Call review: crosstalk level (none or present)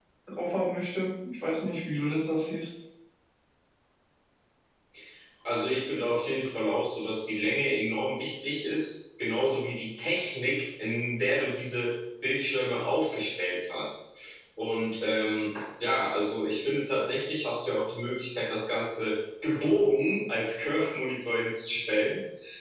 none